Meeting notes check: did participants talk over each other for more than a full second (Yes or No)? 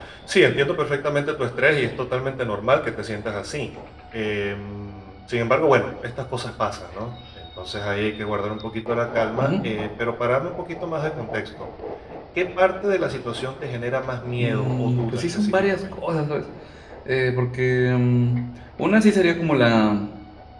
Yes